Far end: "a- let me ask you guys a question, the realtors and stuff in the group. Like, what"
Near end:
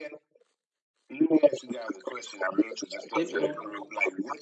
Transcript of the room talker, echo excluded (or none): It will